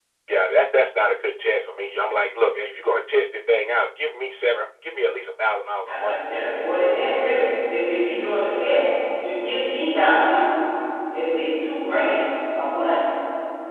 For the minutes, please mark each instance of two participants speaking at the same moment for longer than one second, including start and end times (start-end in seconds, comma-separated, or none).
none